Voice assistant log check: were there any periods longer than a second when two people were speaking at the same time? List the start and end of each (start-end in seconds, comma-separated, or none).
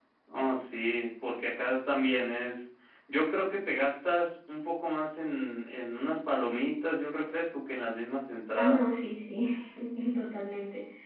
none